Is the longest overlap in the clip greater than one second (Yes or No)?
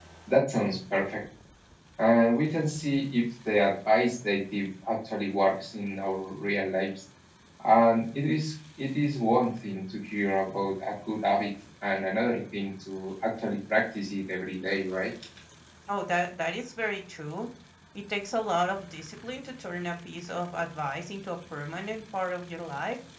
No